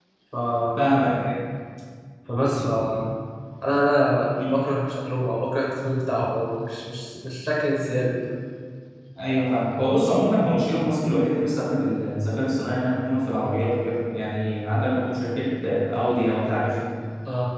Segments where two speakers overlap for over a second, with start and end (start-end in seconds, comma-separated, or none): none